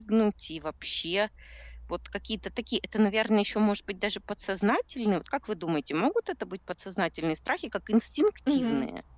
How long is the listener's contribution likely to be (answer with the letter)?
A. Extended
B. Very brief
A